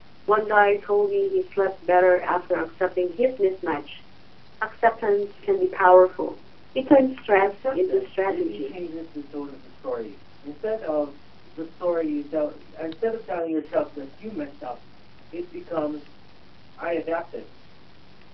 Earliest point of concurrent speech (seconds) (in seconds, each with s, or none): 7.4 s